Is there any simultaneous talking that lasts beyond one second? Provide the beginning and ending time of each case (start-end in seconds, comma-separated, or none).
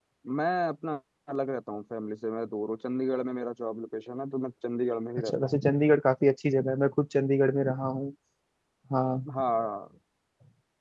none